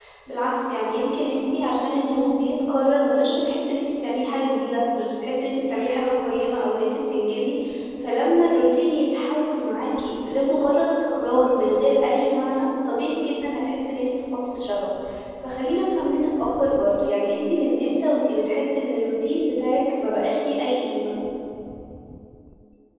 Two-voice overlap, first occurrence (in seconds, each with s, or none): none